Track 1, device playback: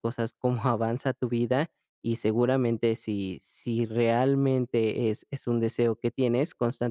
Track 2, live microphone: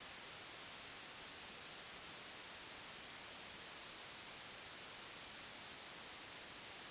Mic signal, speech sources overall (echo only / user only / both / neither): neither